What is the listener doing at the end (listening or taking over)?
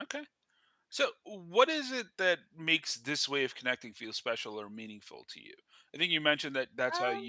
listening